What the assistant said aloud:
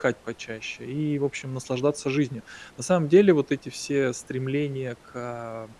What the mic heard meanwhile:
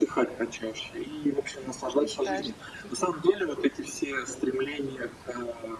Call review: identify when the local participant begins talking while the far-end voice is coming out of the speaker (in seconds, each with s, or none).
2.0 s